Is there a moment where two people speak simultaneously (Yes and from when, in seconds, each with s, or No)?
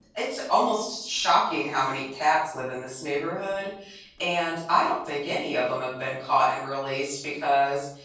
No